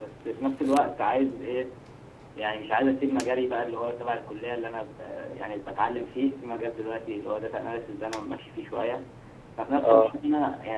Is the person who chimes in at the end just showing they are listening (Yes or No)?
Yes